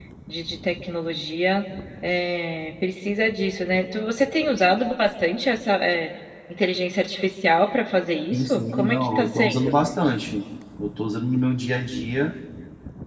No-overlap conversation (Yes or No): No